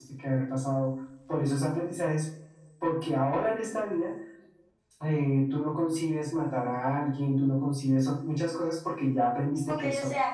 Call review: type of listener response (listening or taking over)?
taking over